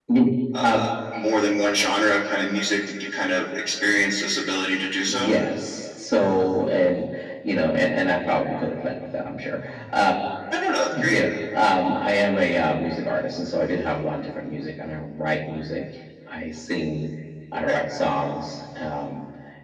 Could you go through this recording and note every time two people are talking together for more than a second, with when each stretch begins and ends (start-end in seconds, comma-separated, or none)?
none